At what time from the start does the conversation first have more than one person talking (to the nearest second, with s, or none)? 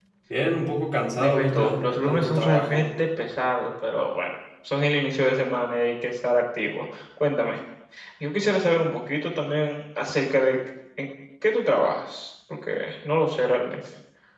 1 s